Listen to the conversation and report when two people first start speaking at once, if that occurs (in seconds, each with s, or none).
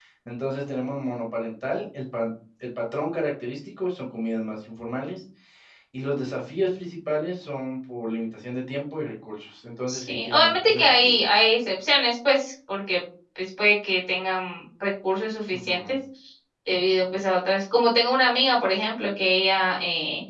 9.9 s